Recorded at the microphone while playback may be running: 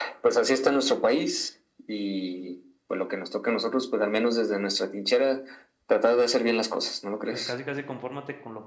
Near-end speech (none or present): present